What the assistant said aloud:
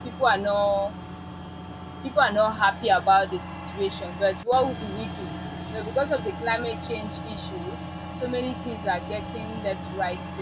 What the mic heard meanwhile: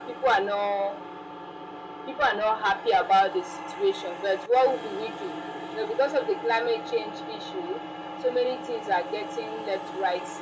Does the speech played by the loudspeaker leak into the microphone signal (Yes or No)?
Yes